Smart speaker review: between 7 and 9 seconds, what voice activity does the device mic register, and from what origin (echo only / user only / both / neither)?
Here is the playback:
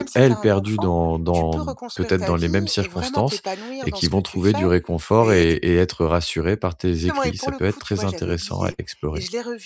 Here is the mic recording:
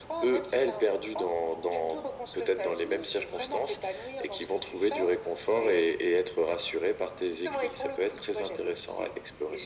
echo only